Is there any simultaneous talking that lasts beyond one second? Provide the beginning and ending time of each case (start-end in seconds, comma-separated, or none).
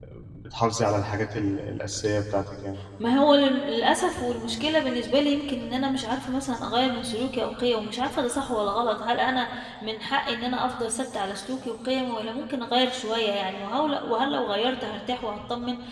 none